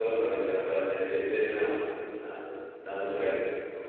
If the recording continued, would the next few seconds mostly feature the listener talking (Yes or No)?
Yes